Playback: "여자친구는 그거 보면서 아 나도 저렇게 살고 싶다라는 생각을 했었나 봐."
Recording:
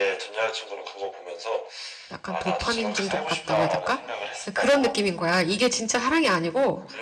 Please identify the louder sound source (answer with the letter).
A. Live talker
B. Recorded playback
A